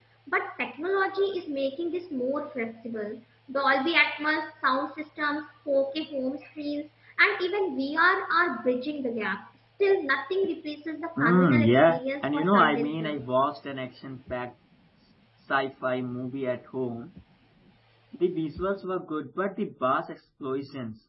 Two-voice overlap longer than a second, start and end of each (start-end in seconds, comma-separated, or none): 11.2-13.2